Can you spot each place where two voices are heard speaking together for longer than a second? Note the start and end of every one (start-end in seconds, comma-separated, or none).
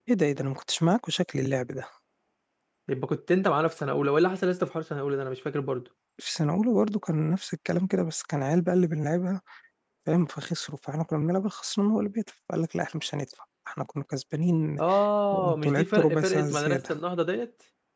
15.3-16.8